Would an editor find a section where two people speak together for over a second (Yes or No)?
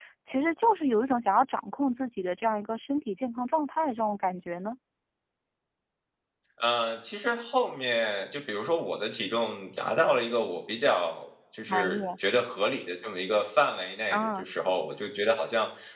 No